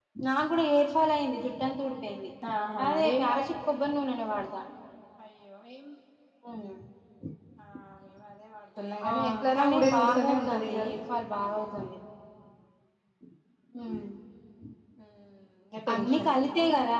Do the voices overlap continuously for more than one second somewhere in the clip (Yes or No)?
Yes